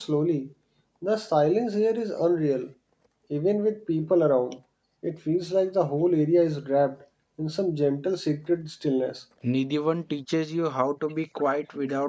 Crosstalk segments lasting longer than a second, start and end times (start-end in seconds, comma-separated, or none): none